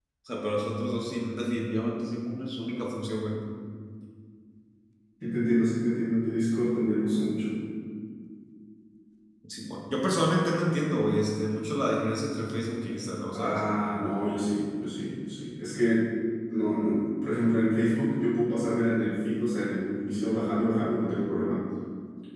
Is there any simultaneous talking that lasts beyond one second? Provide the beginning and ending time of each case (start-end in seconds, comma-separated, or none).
none